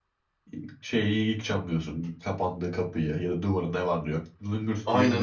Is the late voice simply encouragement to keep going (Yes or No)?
No